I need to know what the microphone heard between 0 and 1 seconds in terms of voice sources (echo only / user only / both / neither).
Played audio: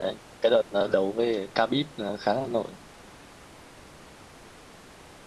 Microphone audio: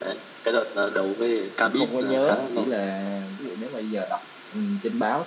echo only